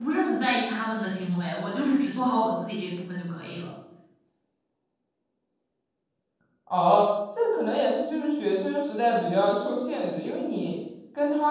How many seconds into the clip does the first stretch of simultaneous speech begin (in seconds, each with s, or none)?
none